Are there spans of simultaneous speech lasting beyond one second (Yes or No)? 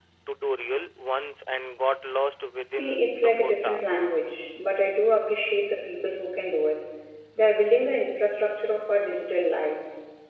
Yes